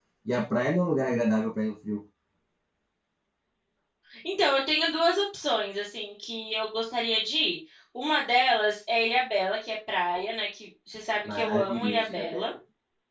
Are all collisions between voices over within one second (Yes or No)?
No